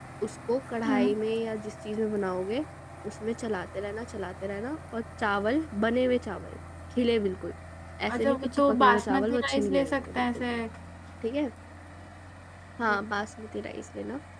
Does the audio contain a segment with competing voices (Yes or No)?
Yes